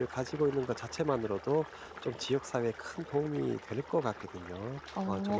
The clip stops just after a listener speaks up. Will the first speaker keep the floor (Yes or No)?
No